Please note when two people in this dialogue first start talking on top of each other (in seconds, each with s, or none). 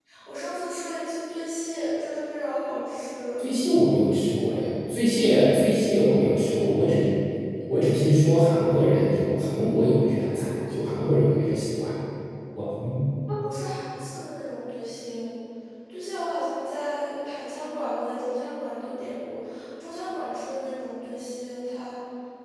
none